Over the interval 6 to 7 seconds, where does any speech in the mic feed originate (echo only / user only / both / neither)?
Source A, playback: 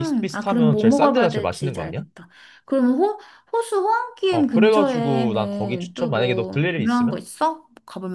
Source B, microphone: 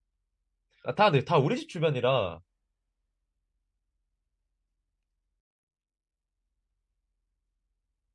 neither